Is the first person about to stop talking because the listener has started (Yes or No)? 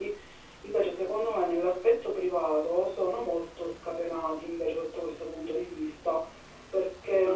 Yes